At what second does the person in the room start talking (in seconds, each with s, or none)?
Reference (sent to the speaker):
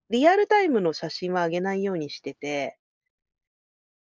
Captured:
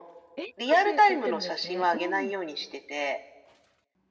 0.4 s